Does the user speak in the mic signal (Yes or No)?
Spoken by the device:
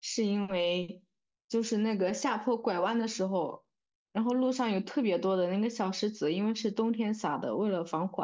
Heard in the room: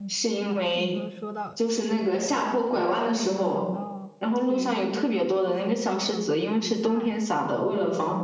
Yes